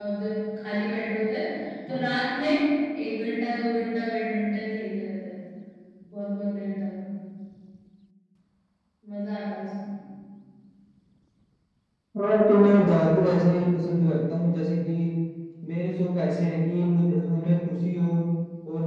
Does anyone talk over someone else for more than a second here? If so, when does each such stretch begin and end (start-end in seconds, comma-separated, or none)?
none